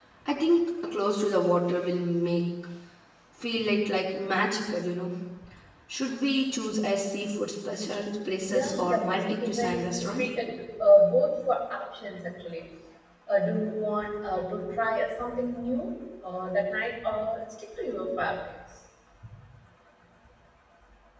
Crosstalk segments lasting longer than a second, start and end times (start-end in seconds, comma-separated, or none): 8.5-10.2